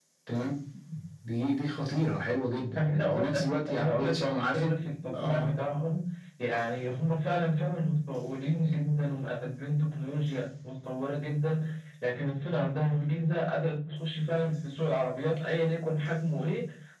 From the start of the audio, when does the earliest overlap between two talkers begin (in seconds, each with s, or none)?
2.8 s